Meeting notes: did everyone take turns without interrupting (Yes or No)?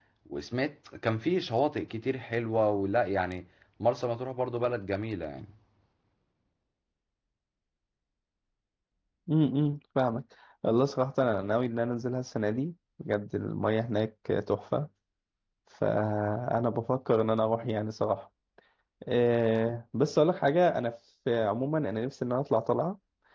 Yes